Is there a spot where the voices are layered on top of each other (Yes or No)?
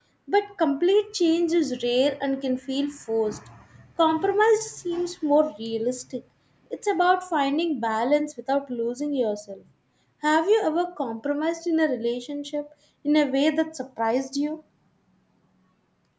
No